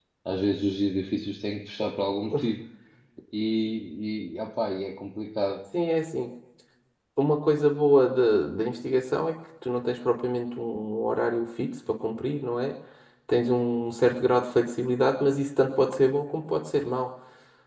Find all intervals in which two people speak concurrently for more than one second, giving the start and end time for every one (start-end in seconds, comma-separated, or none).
none